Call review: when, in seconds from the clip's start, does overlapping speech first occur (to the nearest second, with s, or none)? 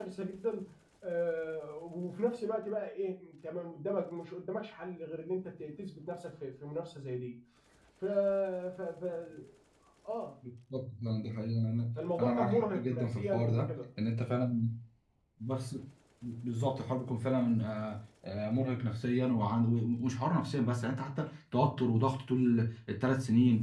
12 s